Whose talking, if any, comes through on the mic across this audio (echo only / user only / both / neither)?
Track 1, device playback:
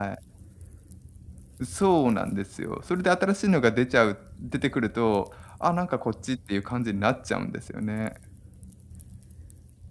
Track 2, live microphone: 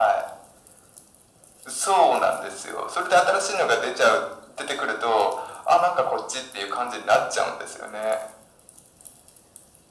echo only